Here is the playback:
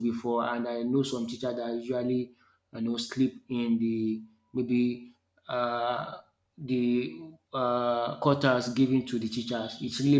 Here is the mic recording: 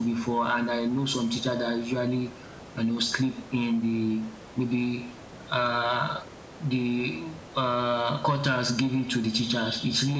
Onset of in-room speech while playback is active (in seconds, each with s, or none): none